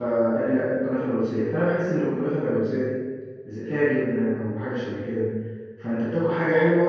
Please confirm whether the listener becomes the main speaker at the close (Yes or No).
No